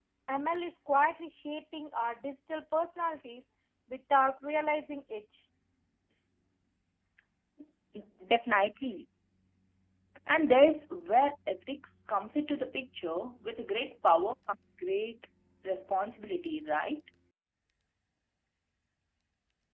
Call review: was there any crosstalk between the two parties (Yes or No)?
No